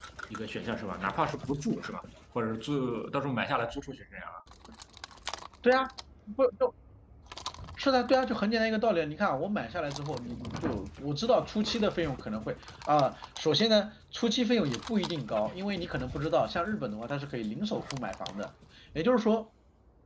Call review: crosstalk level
none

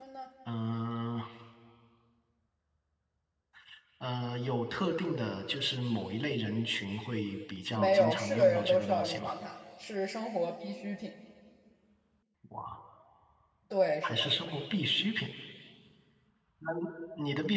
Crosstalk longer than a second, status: present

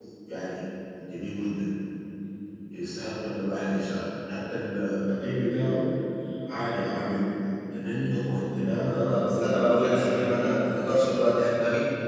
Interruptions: present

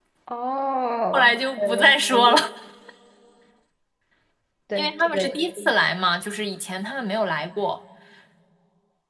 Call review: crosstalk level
present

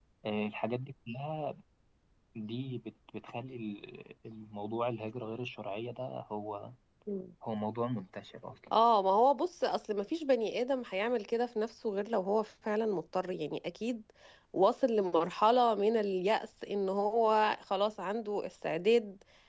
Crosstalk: none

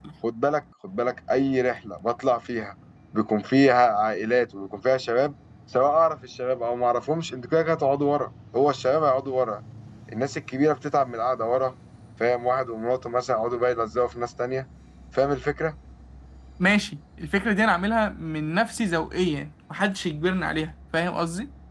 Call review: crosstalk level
none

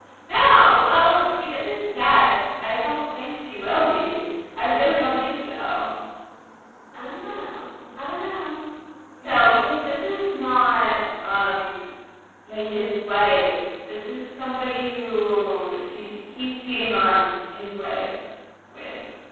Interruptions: none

